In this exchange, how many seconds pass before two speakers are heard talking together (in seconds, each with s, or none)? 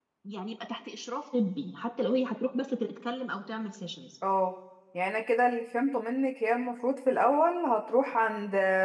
none